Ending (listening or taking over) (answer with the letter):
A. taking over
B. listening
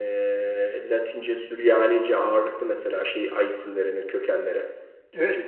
A